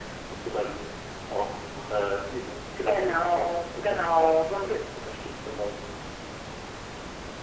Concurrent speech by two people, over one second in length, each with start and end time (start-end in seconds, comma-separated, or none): 2.9-4.3